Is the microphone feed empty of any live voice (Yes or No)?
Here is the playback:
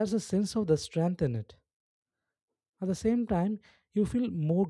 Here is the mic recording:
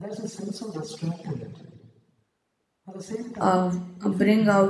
No